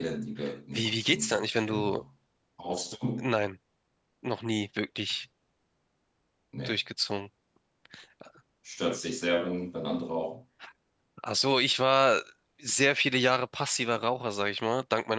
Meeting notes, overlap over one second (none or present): present